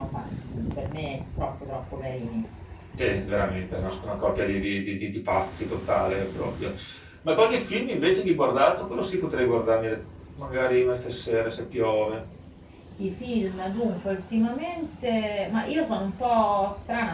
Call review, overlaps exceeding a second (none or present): none